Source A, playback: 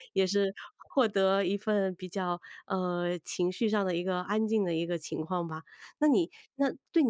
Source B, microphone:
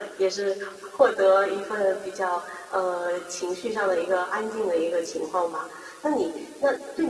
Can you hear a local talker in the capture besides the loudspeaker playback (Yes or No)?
No